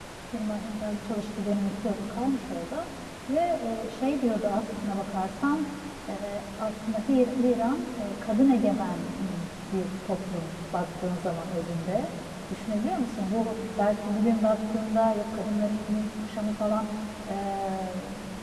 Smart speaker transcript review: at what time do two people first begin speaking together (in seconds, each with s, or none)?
none